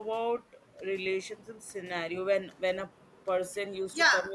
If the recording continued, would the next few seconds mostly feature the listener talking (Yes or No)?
Yes